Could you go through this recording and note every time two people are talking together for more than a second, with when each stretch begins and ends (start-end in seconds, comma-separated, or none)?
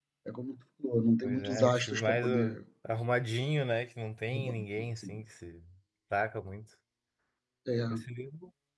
1.2-2.5